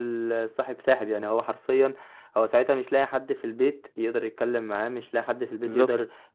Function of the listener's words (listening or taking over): listening